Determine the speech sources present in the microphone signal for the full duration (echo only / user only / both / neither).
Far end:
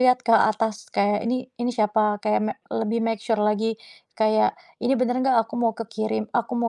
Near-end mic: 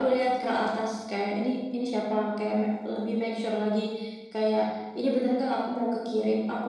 echo only